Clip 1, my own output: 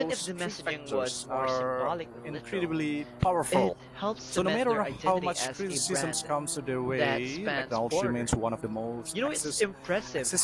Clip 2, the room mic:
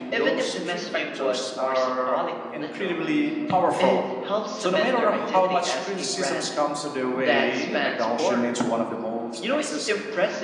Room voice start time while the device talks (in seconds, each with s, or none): none